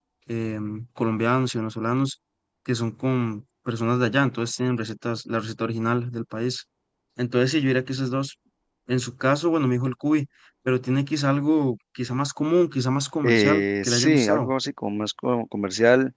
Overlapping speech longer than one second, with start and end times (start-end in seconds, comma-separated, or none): 13.2-14.5